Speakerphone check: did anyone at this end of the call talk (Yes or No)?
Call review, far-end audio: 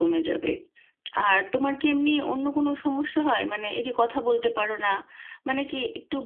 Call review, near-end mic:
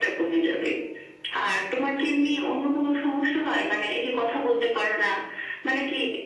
No